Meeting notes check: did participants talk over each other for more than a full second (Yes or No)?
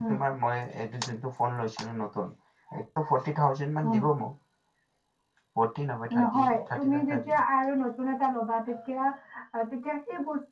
Yes